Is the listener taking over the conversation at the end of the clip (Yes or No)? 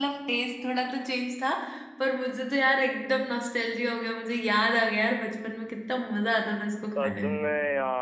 Yes